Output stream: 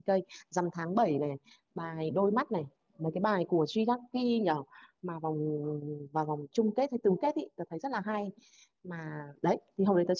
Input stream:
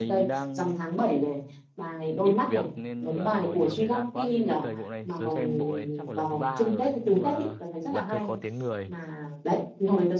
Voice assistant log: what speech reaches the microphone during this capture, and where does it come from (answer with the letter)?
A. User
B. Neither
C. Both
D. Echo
C